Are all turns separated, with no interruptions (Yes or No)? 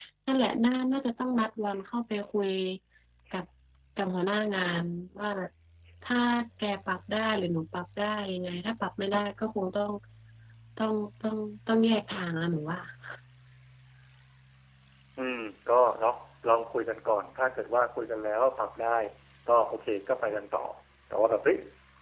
Yes